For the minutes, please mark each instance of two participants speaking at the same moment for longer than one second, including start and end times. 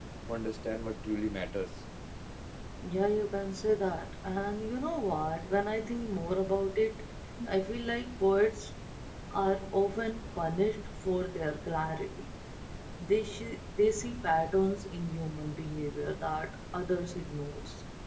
none

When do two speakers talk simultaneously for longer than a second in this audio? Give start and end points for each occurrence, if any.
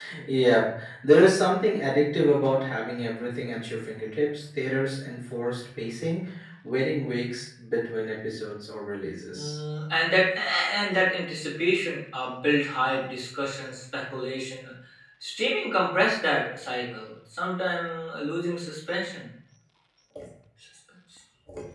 none

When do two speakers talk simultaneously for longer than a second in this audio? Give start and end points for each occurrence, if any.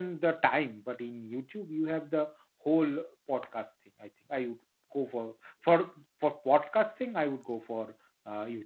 none

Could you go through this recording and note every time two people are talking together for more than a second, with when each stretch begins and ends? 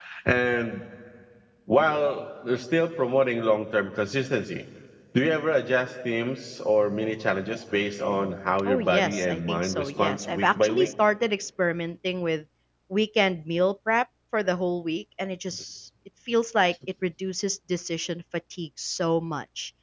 8.7-10.9

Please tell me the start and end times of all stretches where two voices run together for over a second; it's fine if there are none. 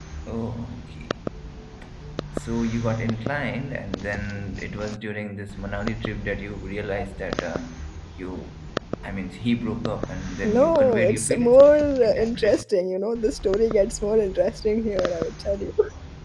10.4-12.6

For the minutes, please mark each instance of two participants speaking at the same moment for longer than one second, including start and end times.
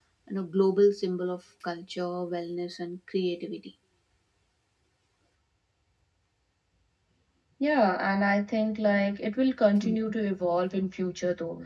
none

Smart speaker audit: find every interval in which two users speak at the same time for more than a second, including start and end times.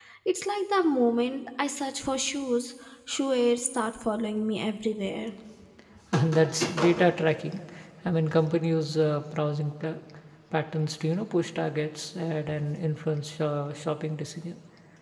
none

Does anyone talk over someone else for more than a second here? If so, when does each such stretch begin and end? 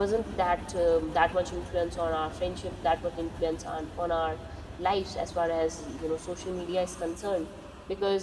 none

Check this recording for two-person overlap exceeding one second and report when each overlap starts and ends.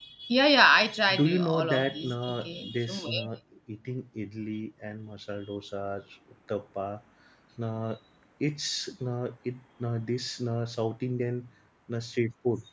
1.1-3.0

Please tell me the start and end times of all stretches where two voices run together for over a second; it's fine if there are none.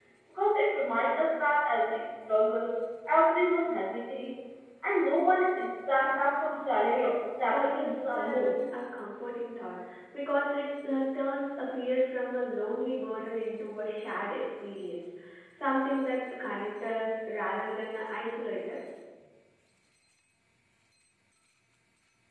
6.9-8.5

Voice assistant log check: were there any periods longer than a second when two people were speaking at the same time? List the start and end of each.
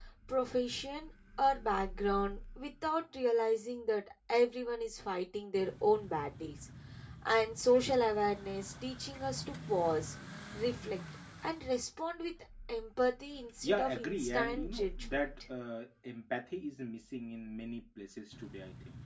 13.6-15.3

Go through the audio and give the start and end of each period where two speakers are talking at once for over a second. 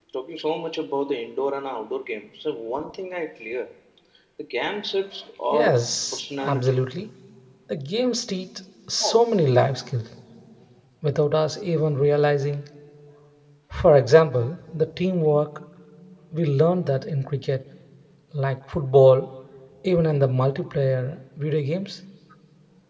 5.5-6.8

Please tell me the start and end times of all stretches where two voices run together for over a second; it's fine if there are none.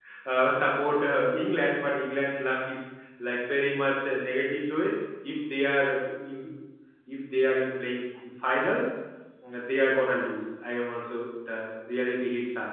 none

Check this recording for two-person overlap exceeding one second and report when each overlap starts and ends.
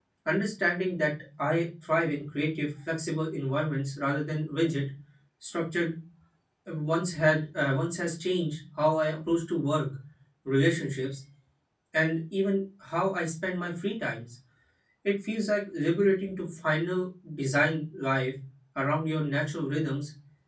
none

